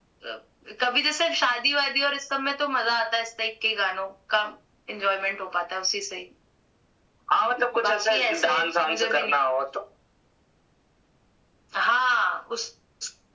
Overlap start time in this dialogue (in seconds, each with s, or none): 7.8 s